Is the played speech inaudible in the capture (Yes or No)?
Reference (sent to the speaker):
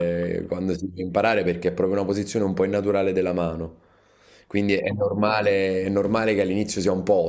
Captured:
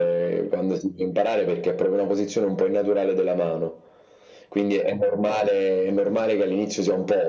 No